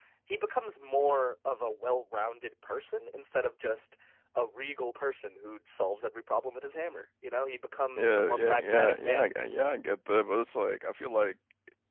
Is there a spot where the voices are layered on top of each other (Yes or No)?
Yes